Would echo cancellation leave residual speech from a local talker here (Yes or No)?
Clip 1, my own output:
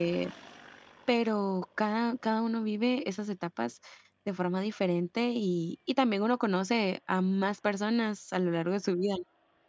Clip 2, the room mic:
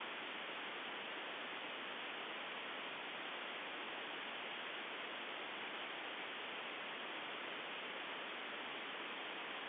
No